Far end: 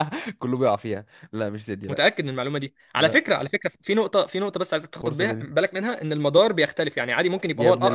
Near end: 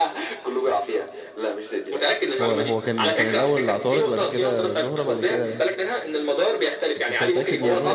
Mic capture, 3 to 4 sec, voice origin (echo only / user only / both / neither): both